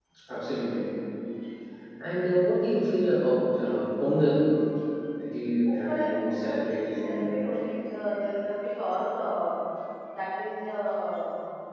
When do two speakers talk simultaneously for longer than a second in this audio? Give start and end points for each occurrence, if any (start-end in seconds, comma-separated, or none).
5.7-7.3